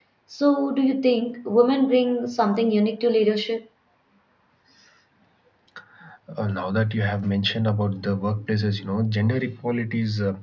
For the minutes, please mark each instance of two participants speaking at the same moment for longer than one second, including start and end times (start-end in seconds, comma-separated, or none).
none